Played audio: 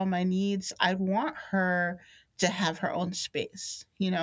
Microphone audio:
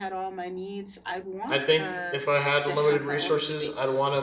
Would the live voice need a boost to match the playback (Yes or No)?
No